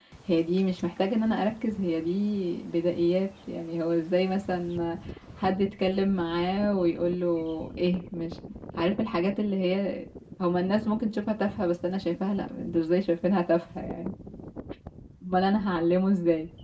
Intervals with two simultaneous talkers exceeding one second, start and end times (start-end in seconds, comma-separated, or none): none